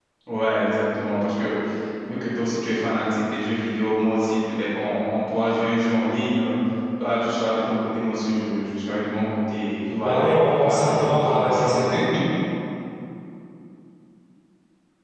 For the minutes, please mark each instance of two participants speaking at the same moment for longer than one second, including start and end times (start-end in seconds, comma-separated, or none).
10.0-11.8